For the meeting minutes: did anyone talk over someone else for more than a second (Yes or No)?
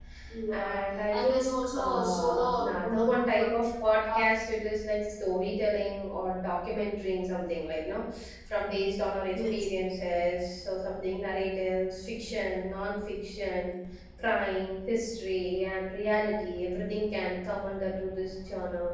Yes